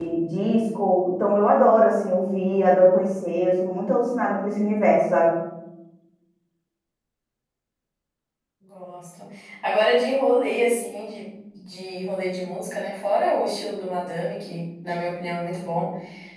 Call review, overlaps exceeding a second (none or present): none